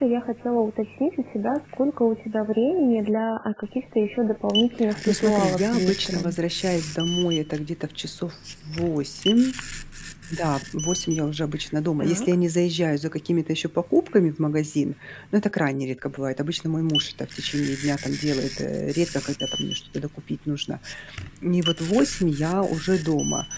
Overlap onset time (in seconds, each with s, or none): 5.1 s